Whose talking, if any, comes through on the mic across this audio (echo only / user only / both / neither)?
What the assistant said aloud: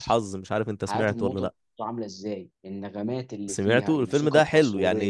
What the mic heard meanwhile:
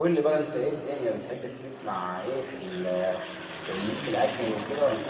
user only